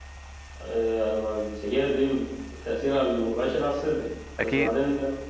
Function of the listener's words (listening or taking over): listening